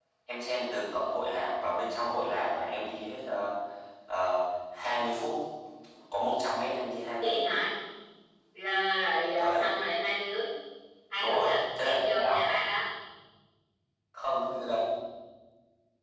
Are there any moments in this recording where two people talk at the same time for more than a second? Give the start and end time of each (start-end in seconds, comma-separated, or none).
11.2-12.5